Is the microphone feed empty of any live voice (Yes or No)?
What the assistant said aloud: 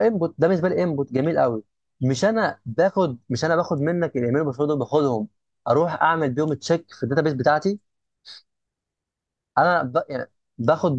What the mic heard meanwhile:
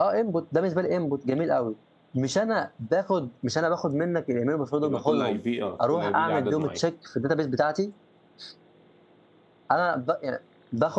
No